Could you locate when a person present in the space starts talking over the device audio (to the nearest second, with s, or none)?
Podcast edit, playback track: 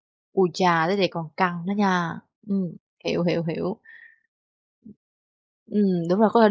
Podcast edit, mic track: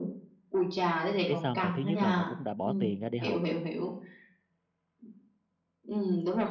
1 s